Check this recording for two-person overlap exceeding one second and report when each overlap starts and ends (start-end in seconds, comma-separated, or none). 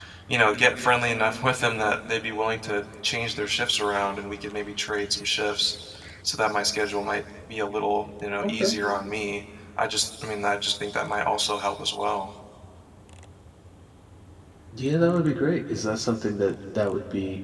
none